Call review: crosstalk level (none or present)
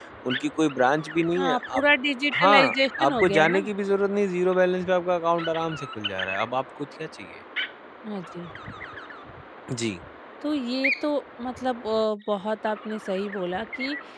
present